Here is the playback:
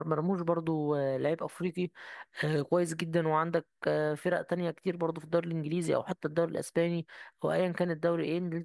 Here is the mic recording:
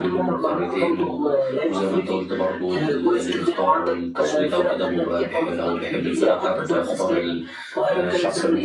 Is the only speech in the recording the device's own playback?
No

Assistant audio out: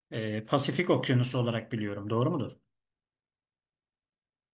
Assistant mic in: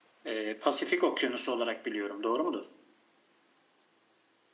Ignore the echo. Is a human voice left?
No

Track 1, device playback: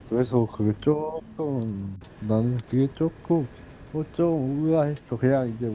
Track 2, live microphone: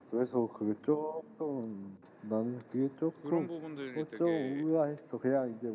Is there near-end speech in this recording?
Yes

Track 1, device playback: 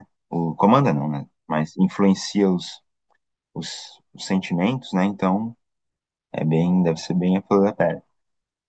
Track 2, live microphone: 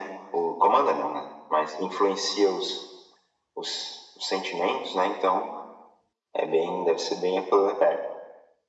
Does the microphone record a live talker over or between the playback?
No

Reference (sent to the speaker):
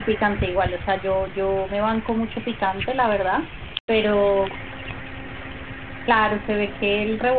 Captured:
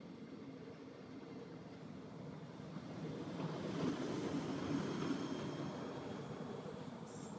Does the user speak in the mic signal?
No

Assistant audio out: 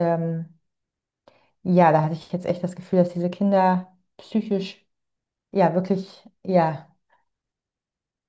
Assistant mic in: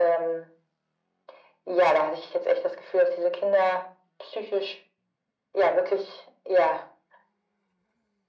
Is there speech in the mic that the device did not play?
No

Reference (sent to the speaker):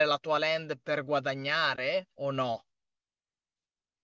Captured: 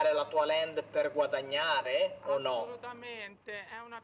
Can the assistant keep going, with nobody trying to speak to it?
No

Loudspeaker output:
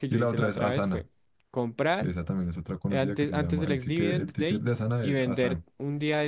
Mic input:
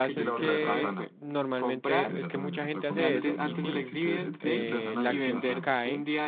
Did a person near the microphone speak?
Yes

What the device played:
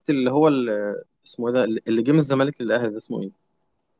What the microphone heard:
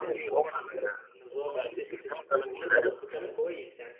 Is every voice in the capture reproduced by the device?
No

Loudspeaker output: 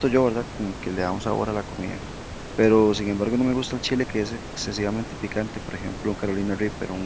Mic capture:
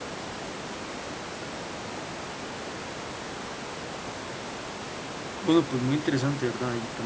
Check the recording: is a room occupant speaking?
Yes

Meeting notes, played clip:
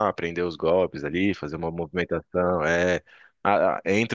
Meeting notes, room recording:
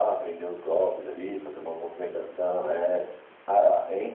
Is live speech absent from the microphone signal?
Yes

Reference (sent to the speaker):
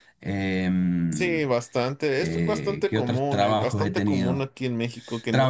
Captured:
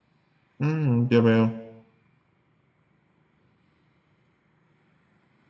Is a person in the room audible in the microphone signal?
Yes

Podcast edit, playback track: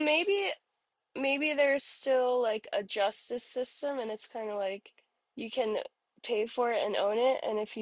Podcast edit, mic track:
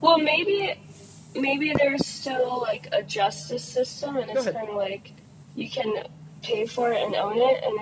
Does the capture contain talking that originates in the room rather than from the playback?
Yes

